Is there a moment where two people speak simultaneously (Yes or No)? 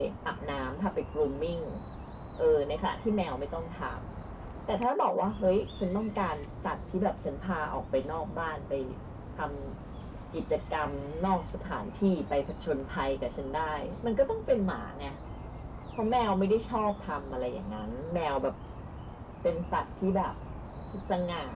No